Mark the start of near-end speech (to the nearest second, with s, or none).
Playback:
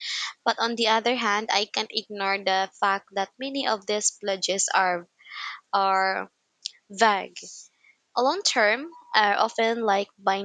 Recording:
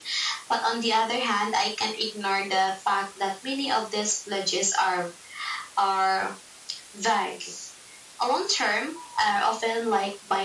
none